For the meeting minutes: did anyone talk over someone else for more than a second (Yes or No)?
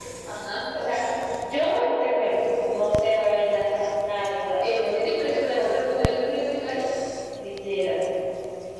Yes